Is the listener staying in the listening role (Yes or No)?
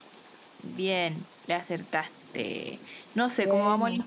Yes